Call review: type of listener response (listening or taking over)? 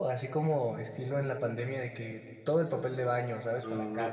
taking over